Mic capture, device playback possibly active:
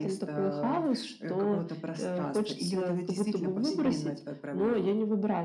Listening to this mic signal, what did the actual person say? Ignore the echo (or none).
none